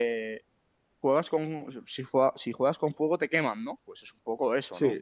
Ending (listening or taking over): taking over